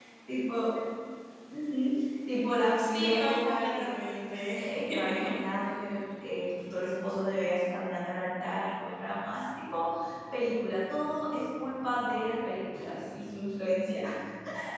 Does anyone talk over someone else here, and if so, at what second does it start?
2.8 s

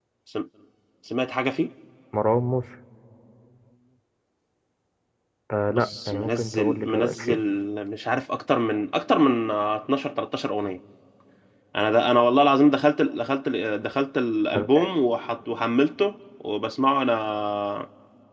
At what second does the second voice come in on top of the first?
5.7 s

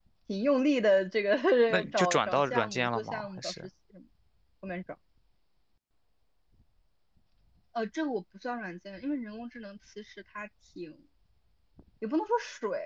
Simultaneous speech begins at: 1.9 s

